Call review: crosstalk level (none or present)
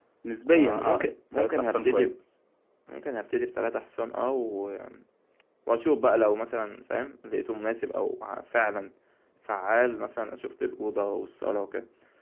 present